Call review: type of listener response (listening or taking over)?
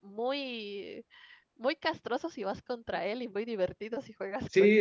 taking over